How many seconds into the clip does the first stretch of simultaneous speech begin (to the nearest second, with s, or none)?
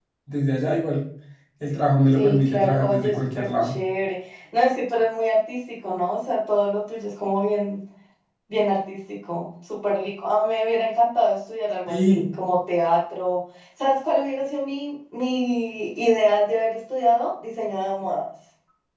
2 s